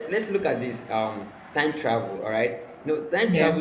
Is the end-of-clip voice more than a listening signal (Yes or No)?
No